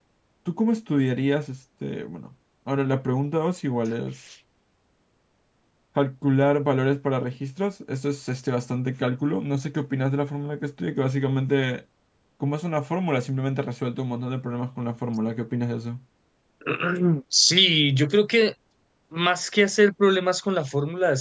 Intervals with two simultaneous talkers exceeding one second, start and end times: none

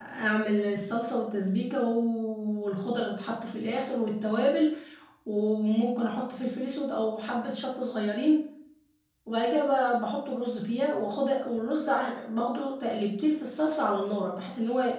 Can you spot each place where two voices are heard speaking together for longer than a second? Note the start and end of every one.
none

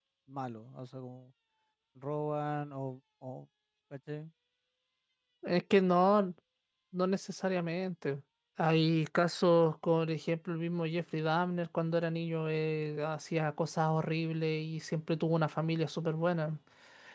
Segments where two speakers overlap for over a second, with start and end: none

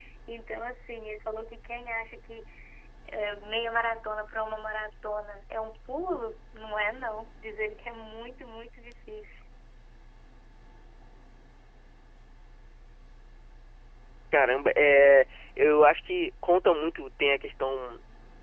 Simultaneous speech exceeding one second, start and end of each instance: none

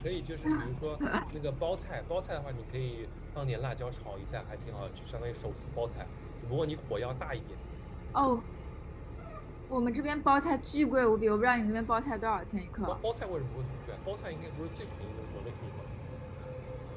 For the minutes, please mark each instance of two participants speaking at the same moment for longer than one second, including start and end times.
none

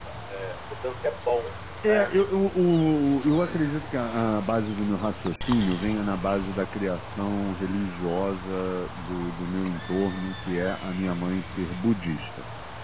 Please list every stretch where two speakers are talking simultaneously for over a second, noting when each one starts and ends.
none

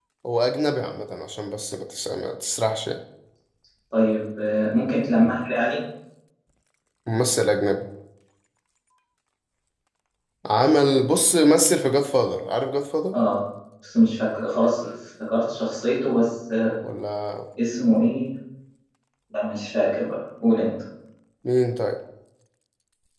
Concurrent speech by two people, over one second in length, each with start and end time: none

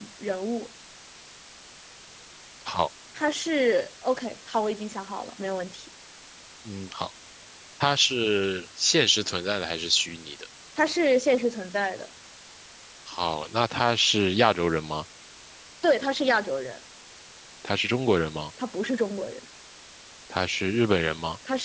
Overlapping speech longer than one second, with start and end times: none

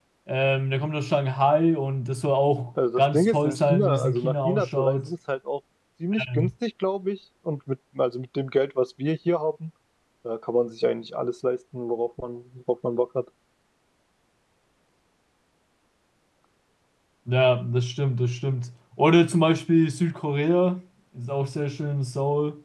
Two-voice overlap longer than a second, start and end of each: 3.0-5.1

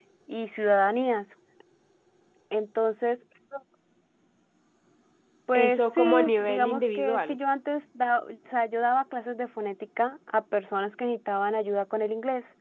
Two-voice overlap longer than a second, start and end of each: 5.5-7.4

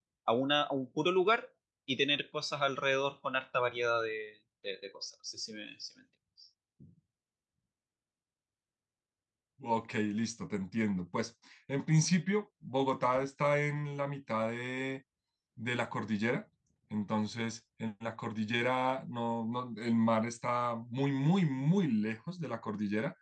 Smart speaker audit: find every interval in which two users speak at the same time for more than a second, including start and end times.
none

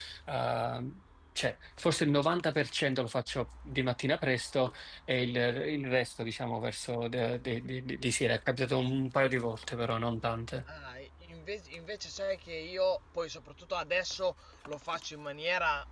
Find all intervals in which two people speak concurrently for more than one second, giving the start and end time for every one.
none

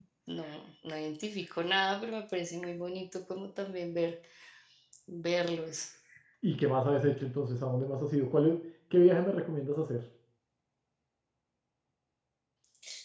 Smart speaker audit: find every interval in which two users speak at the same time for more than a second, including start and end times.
none

